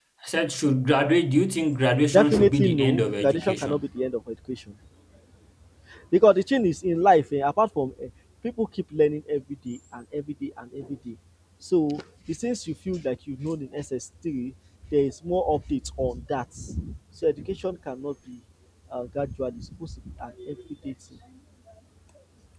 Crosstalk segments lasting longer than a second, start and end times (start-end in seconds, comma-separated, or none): 2.1-3.8